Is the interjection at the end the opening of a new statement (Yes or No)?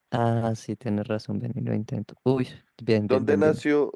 Yes